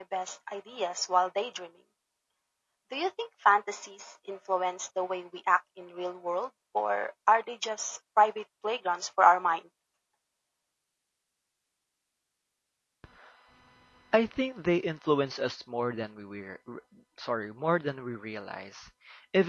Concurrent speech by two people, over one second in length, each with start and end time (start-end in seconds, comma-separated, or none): none